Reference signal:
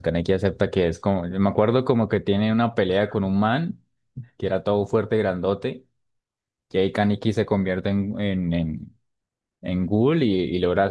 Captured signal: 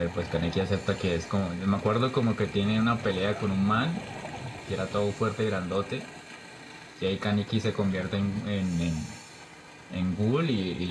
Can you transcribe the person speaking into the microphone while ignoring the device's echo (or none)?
none